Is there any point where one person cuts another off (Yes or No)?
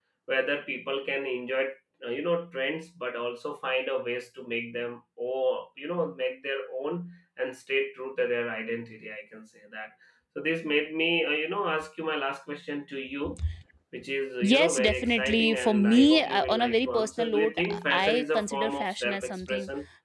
Yes